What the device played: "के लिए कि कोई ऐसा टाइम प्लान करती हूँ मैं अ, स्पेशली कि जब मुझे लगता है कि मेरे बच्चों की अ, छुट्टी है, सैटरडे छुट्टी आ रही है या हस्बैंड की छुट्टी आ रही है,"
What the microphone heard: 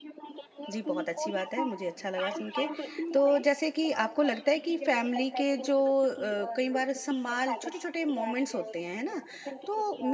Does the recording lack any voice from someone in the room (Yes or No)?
No